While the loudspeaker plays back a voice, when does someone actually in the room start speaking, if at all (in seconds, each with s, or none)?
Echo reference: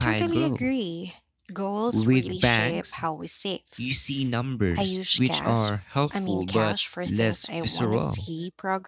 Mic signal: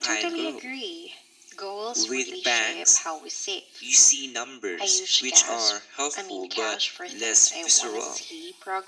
none